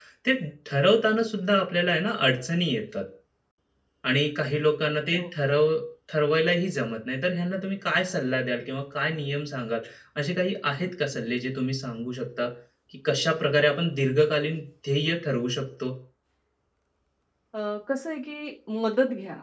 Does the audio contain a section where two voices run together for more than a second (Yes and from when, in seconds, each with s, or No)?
No